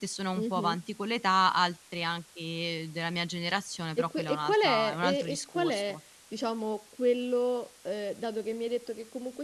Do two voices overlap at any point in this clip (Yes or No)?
Yes